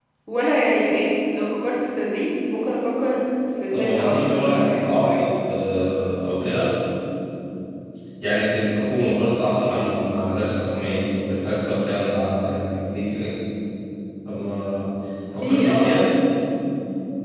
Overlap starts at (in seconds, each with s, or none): 3.7 s